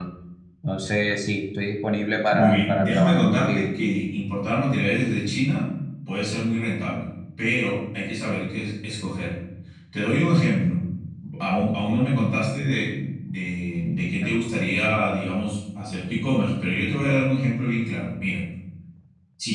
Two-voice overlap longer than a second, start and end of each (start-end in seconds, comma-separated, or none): 2.3-3.6